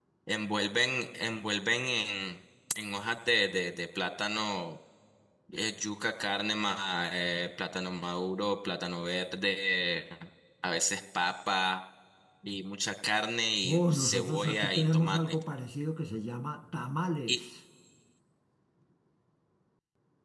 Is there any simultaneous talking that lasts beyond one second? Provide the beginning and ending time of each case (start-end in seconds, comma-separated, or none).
13.6-15.4